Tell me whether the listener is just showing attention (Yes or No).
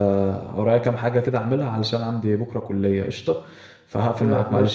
No